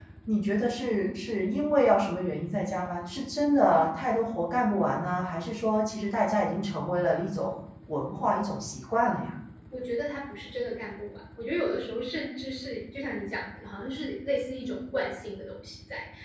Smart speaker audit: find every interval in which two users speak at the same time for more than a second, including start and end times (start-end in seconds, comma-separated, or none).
none